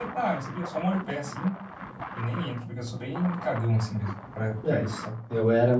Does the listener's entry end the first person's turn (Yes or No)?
Yes